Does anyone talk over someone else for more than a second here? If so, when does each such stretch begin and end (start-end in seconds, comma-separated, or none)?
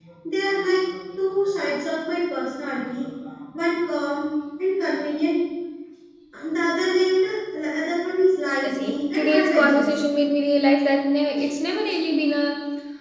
8.6-10.0